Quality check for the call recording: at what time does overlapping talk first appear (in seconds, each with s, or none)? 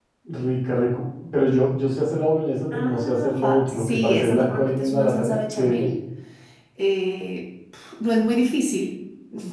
2.7 s